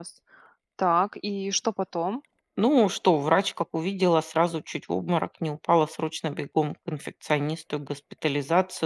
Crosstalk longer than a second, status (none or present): none